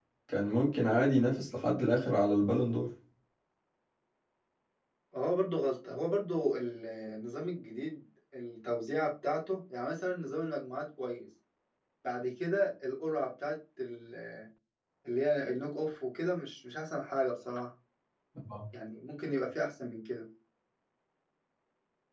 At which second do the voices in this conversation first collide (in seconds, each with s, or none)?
none